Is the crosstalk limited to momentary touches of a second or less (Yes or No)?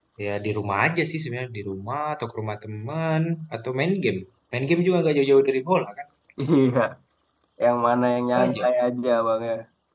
Yes